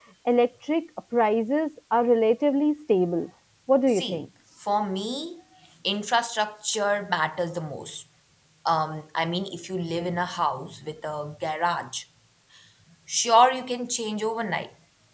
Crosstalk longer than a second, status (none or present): none